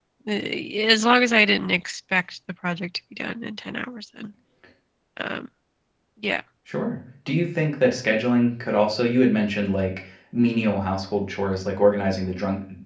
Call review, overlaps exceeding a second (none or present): none